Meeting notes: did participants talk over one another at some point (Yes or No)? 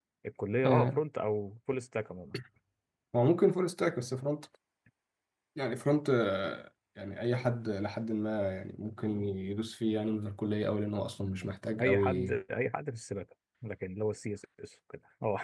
Yes